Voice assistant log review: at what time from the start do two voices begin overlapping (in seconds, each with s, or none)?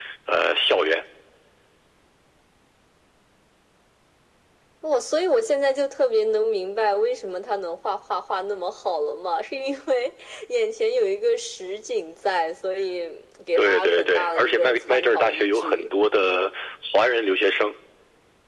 13.6 s